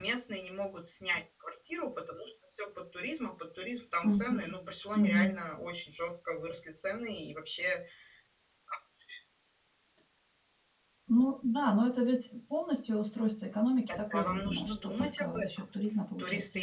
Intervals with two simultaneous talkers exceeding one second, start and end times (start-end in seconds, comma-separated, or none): 13.9-15.7